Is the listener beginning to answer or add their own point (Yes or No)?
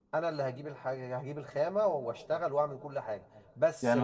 Yes